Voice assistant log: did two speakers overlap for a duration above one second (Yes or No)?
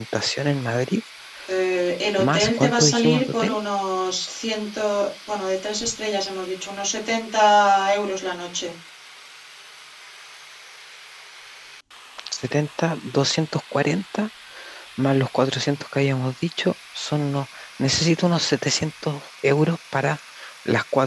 Yes